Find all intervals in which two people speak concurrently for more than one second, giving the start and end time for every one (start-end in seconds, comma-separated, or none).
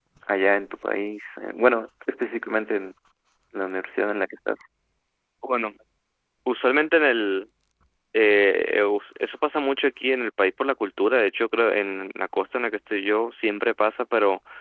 none